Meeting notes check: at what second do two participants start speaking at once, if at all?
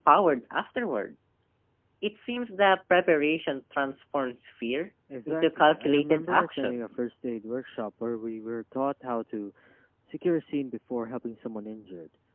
5.1 s

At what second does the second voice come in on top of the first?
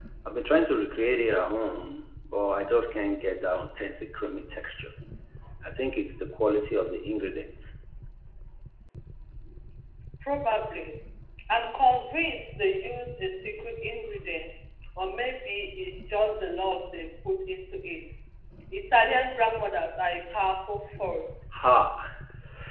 none

